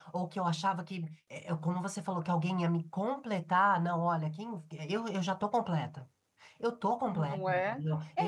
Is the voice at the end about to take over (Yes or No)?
Yes